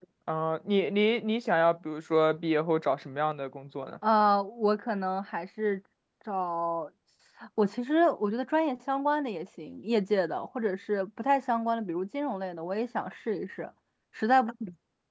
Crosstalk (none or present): none